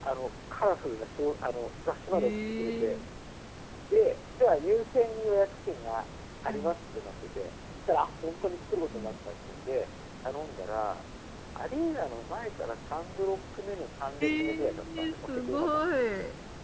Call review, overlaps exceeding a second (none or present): present